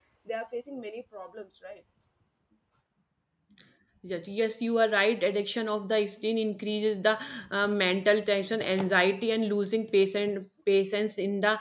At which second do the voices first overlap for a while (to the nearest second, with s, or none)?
none